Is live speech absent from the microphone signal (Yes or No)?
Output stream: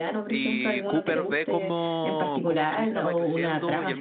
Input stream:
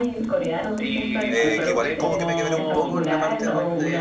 No